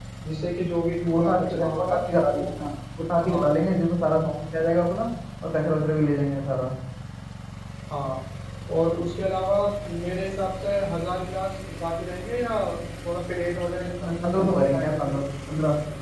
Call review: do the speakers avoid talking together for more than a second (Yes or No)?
No